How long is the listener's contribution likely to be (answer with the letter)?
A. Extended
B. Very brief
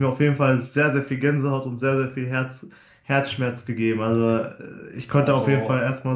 B